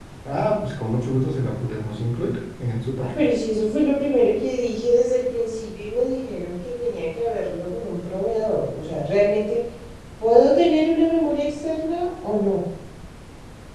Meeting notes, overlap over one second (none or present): none